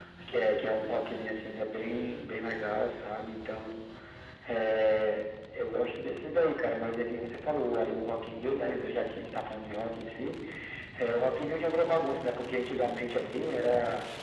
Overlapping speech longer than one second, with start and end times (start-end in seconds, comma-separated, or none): none